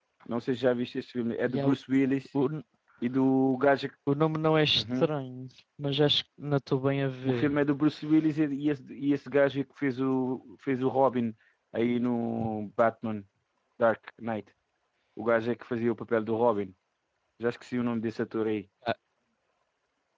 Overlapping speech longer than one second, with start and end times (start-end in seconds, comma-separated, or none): none